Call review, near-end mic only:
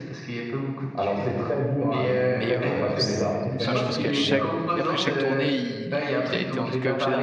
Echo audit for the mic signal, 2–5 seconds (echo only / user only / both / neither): both